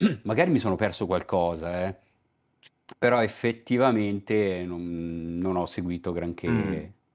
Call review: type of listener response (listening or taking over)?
taking over